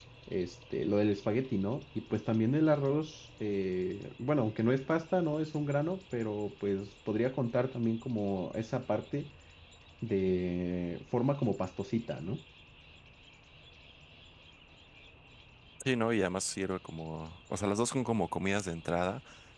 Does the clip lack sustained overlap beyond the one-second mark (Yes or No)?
Yes